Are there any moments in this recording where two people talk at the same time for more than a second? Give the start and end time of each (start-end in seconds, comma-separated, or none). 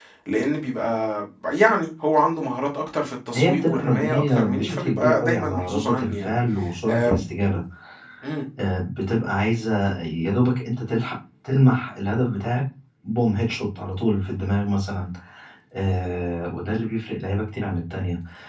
3.3-6.4